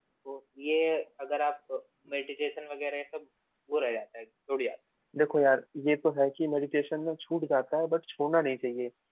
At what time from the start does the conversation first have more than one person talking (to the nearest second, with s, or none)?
none